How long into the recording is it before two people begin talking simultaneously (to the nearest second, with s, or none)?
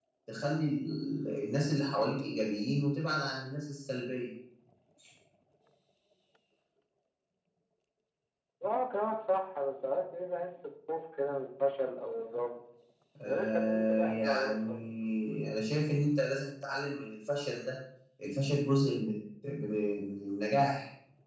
13 s